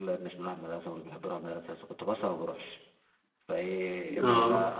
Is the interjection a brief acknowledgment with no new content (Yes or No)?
Yes